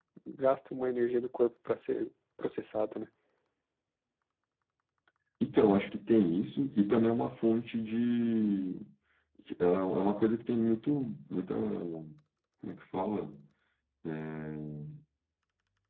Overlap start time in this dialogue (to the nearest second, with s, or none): none